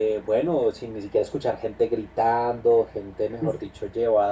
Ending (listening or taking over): listening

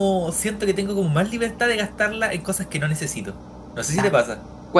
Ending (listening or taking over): taking over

